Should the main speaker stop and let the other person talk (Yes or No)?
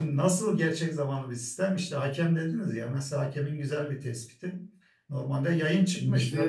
No